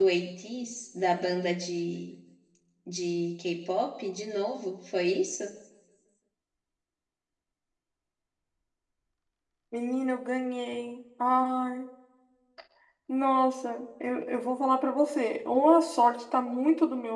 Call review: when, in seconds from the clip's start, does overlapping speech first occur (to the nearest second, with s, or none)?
none